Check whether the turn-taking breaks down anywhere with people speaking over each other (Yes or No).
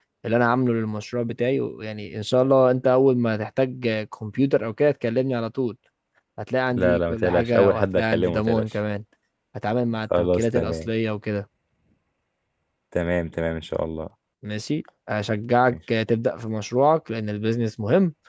Yes